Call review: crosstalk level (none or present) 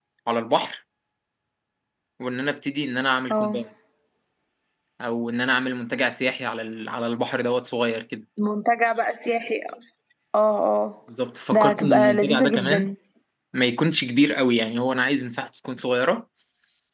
present